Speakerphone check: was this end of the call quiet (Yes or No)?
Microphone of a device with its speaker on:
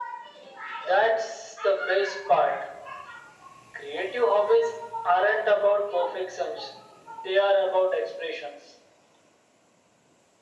Yes